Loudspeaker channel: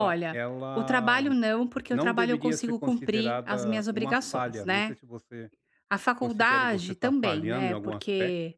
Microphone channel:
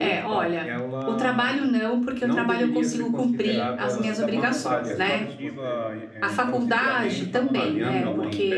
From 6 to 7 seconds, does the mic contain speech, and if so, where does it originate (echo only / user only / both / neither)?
both